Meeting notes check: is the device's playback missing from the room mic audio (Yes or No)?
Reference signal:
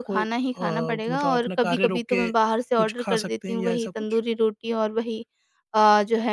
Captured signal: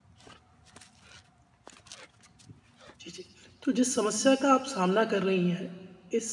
Yes